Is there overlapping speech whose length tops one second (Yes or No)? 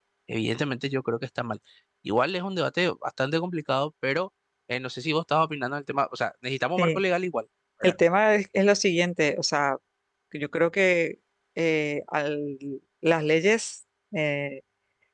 No